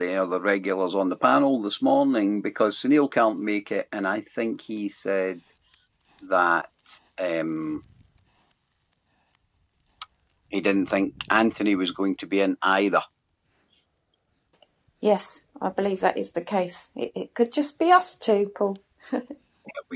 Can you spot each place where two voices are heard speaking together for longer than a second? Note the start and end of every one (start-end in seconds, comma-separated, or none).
none